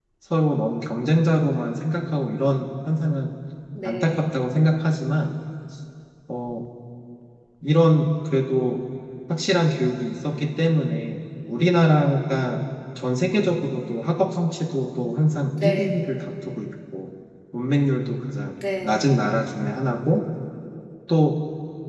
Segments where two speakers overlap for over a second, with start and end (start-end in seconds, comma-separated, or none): none